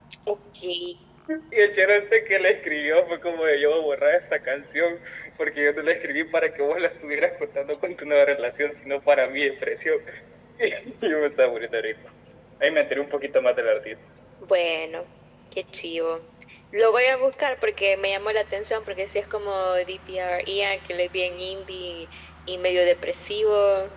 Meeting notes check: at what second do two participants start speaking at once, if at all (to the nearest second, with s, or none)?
none